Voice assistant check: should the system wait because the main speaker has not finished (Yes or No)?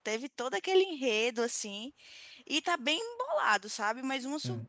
Yes